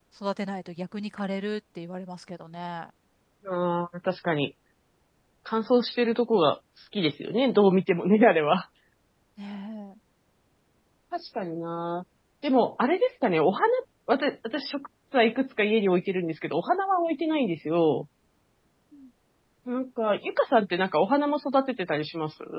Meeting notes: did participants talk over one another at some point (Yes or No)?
No